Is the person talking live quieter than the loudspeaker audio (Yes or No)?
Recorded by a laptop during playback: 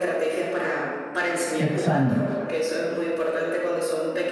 No